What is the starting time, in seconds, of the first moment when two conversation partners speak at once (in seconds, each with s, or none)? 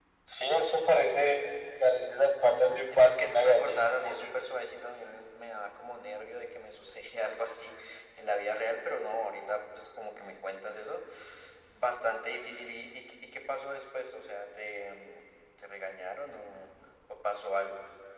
2.5 s